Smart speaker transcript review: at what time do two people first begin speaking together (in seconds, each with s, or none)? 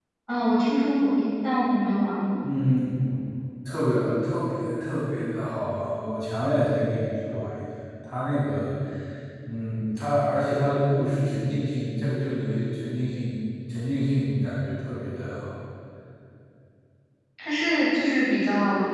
none